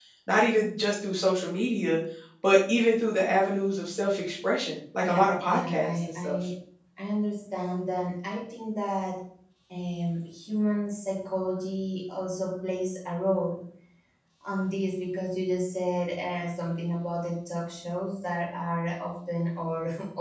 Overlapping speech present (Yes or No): Yes